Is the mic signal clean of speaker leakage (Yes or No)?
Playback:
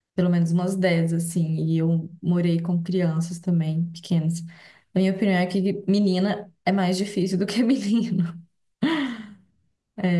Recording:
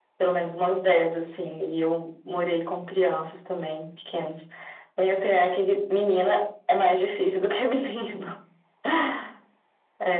No